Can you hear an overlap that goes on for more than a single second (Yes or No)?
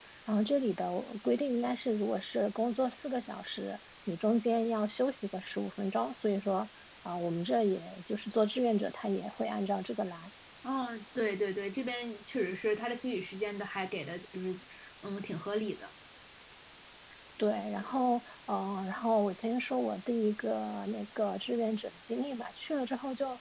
No